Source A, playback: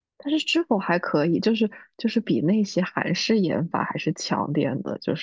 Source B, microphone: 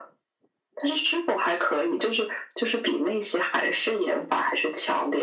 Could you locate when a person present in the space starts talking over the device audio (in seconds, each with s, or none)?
none